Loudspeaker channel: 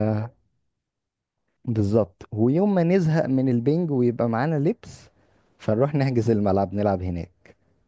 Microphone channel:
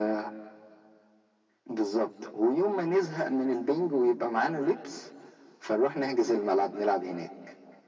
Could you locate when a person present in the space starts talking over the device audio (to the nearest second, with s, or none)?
none